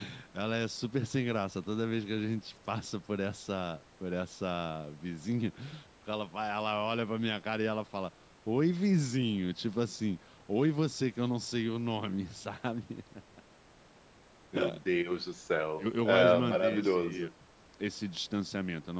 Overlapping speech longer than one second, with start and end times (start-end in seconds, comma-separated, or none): 15.8-17.3